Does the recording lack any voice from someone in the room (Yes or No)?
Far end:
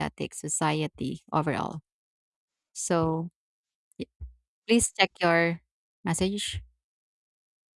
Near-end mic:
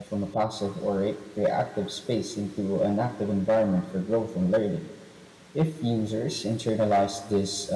No